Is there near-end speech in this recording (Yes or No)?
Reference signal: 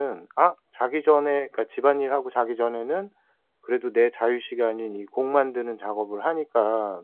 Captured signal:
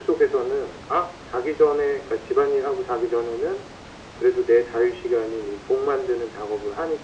No